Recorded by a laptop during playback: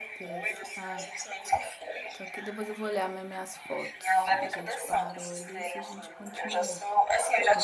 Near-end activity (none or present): present